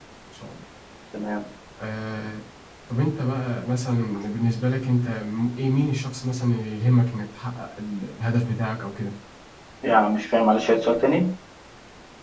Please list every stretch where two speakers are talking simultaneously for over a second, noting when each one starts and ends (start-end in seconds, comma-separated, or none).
none